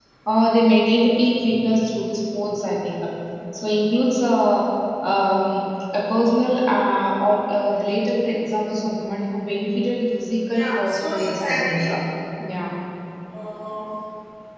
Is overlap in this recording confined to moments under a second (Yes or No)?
No